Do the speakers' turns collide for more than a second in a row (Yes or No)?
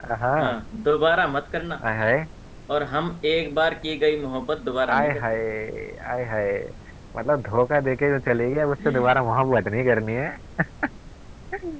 No